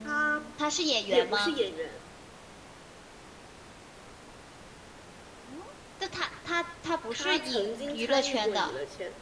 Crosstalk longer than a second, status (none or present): present